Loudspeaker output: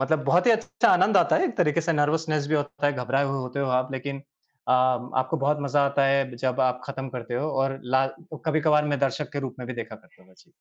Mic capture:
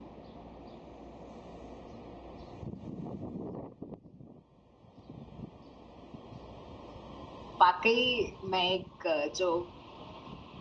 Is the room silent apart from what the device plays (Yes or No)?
No